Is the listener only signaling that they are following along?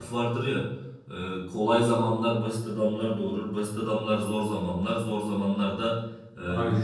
Yes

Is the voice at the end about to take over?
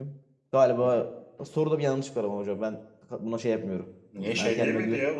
Yes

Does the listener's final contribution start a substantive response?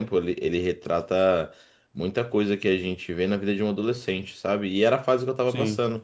No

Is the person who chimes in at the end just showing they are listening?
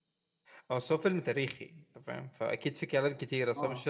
No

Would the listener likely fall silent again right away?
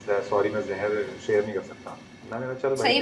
No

